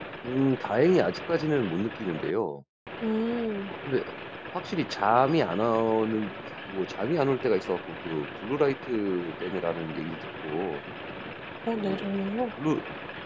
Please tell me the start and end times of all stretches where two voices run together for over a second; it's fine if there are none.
none

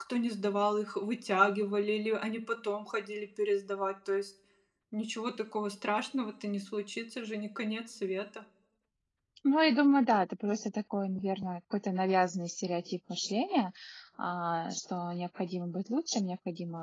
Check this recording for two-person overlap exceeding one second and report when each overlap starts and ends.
none

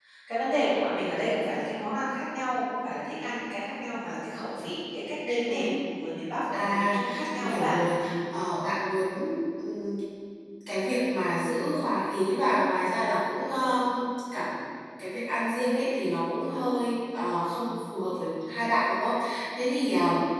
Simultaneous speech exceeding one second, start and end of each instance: 6.5-7.7

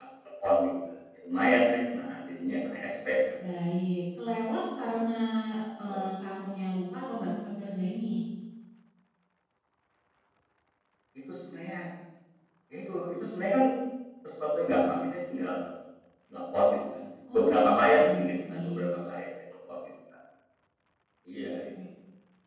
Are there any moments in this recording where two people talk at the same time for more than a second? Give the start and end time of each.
17.3-18.9

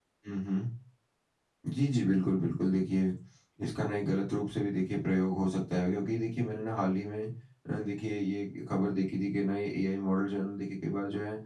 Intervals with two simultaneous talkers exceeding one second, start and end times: none

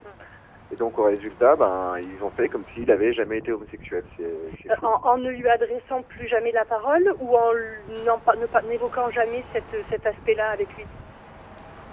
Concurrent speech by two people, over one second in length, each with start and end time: none

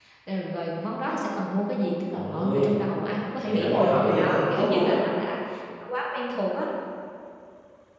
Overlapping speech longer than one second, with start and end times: 3.4-5.0

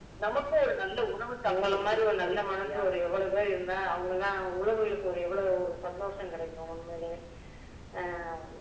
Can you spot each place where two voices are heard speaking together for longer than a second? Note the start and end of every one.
1.5-2.8

